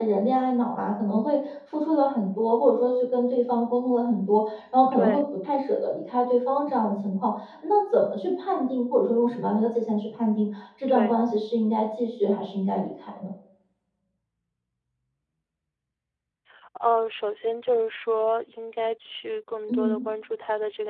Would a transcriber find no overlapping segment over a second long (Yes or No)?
Yes